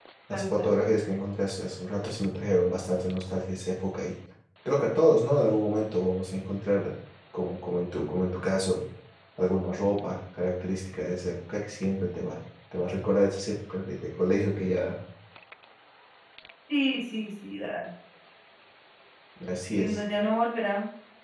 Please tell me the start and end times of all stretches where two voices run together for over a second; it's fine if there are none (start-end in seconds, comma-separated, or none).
none